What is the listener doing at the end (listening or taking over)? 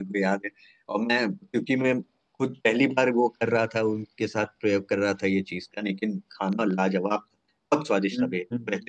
listening